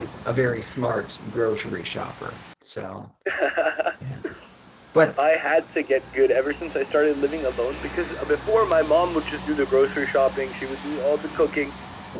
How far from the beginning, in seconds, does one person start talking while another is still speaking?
none

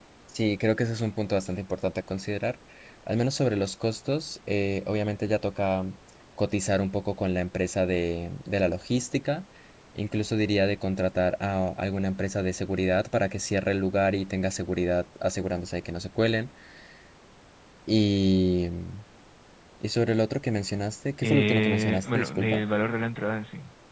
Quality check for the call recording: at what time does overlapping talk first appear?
21 s

